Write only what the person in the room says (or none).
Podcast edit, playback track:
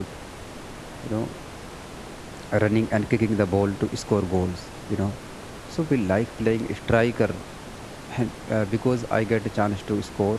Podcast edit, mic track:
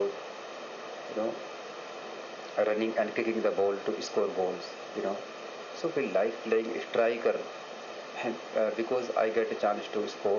none